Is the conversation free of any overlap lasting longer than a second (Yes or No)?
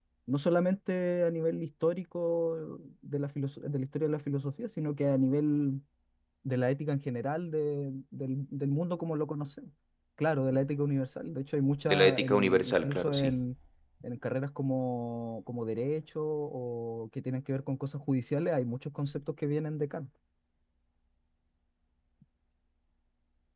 No